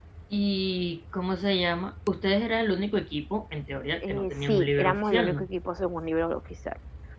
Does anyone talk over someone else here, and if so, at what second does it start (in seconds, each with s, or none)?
4.0 s